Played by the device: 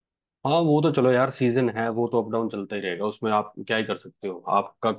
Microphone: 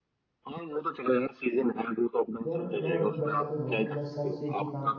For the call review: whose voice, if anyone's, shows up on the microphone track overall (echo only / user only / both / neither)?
both